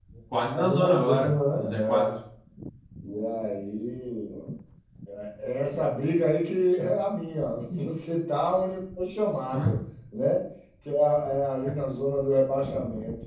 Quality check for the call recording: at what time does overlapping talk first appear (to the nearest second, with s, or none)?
1 s